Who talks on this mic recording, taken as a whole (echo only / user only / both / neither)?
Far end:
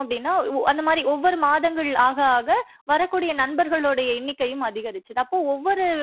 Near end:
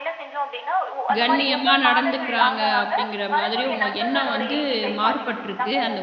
both